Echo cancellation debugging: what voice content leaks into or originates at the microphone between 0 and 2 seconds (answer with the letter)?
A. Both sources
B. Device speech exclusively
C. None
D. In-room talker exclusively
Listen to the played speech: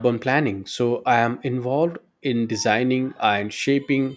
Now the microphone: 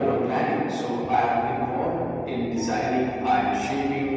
B